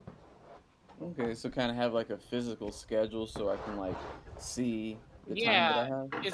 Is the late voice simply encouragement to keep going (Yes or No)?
No